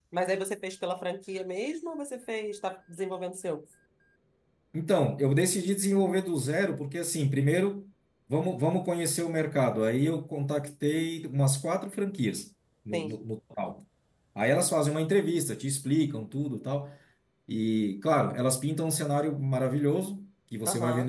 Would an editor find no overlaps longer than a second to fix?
Yes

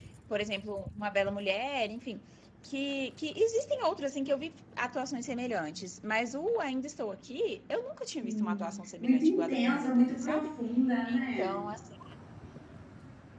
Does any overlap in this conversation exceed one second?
Yes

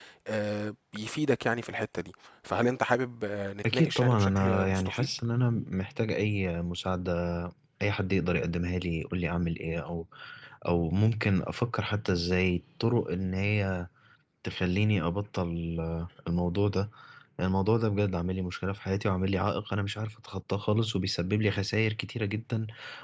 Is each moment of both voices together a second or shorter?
No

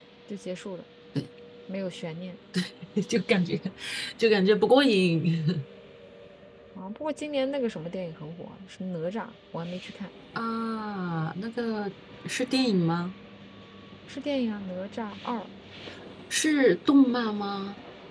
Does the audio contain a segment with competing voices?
No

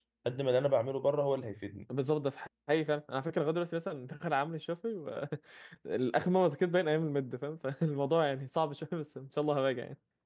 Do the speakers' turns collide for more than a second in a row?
No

